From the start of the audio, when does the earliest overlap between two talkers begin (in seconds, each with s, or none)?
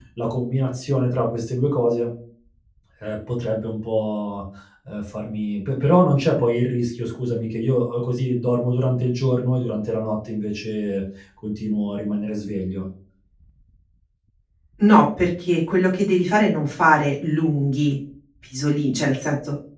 none